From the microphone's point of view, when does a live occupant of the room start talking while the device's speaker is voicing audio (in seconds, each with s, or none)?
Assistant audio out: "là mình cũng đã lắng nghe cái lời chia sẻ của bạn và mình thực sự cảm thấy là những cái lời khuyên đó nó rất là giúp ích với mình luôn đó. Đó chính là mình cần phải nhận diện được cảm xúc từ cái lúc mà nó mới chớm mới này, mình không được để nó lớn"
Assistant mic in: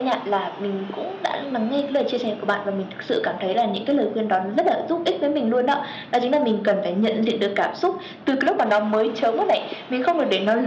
none